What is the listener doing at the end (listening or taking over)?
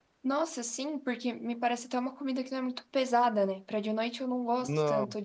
listening